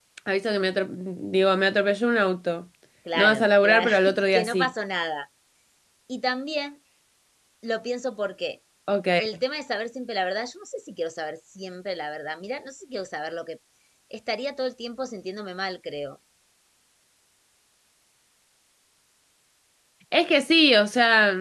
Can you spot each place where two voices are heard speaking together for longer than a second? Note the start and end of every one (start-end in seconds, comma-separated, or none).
3.1-4.7